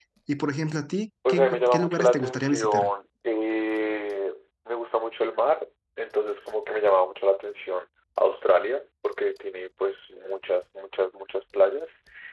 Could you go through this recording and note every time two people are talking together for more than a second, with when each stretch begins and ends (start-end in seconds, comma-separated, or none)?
1.3-2.9